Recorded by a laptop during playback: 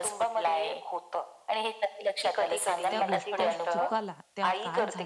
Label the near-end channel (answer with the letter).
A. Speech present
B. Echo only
A